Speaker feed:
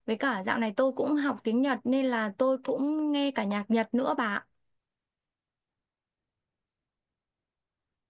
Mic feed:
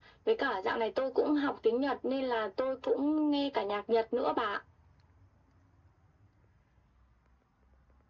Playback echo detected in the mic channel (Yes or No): Yes